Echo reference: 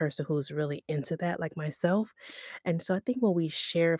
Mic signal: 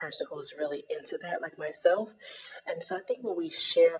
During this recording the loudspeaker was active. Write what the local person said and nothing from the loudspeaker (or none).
none